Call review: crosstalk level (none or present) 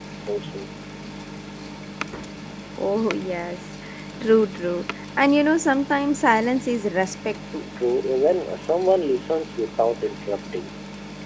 none